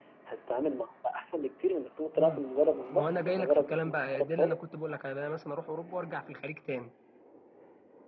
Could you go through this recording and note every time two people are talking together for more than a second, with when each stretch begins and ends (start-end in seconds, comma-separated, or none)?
2.9-4.6